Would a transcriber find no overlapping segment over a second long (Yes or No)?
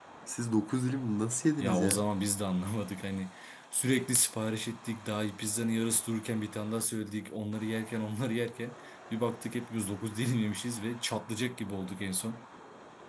Yes